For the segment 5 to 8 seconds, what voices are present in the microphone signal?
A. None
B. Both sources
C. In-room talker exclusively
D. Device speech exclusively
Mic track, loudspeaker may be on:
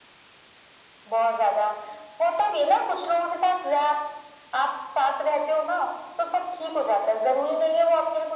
D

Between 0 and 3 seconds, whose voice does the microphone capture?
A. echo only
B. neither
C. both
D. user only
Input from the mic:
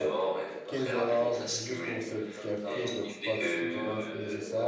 C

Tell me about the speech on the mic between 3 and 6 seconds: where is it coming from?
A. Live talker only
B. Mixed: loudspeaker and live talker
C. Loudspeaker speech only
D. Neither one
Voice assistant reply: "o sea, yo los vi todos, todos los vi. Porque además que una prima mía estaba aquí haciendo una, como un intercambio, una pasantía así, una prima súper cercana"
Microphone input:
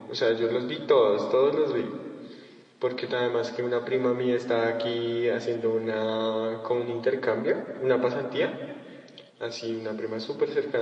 C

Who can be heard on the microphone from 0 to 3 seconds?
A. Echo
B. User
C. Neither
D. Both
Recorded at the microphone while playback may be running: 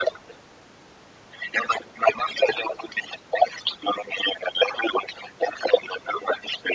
A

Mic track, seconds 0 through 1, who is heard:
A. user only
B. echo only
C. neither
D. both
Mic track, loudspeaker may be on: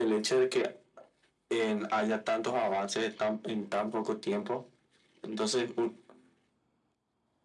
B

